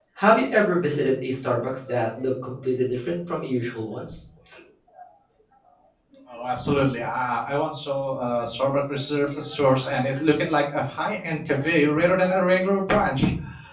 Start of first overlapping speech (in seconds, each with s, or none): none